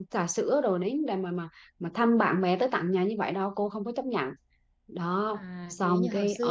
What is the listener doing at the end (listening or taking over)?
taking over